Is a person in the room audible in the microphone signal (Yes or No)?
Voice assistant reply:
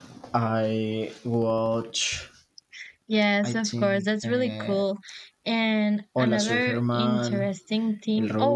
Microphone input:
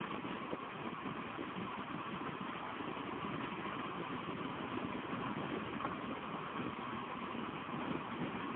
No